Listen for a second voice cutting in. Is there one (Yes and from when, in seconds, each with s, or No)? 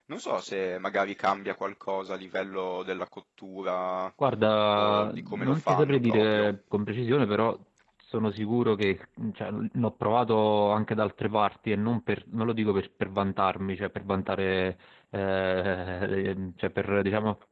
Yes, from 4.7 s